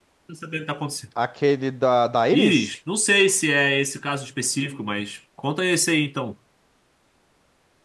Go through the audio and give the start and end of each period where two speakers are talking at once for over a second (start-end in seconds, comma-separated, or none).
none